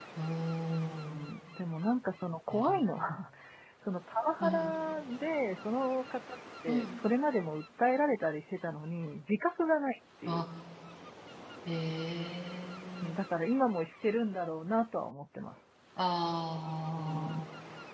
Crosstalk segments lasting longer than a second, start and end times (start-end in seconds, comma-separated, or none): none